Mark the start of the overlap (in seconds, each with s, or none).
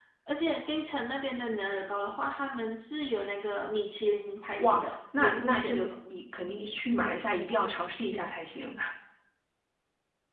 4.5 s